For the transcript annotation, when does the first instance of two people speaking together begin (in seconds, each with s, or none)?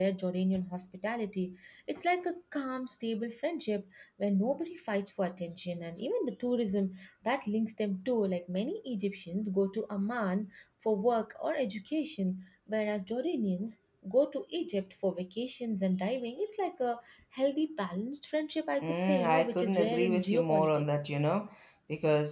18.8 s